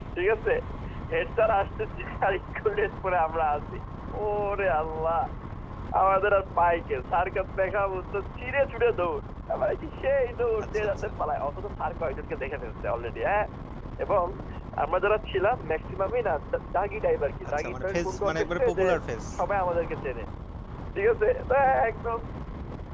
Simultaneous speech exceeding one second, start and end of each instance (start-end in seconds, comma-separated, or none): 17.6-18.9